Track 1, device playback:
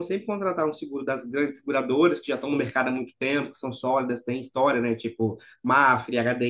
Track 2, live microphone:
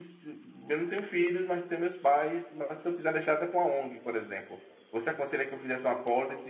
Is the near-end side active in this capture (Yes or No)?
Yes